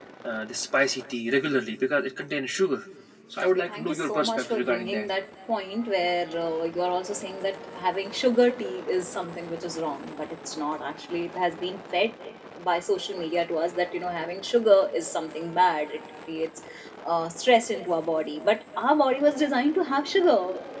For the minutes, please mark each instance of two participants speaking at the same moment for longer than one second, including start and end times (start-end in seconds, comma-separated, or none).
3.4-5.0